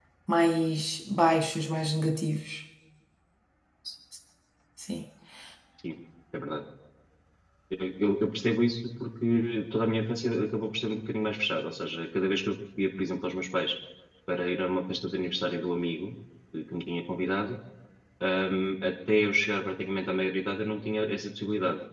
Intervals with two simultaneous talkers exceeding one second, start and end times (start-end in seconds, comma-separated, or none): none